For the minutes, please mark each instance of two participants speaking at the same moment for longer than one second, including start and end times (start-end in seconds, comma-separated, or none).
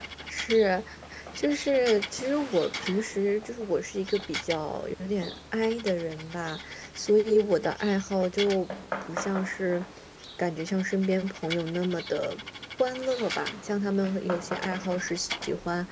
none